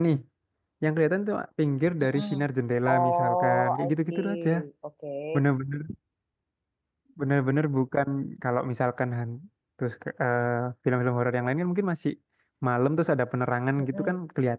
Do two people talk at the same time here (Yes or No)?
Yes